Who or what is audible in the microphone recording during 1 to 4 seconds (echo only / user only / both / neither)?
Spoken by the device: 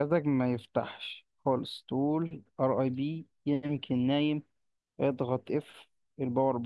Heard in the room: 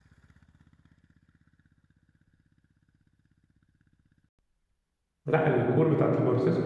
neither